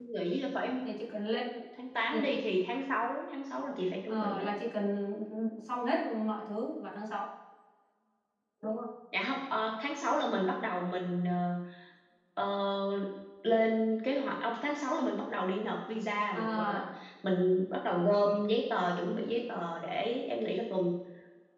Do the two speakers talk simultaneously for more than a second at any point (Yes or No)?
No